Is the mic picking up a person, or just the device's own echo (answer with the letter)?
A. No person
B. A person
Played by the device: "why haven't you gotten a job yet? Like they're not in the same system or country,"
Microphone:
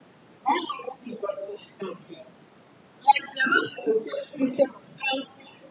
A